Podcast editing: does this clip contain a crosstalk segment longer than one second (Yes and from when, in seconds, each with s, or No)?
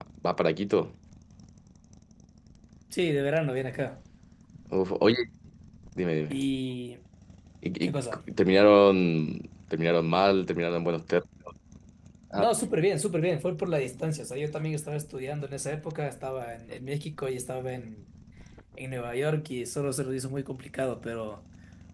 No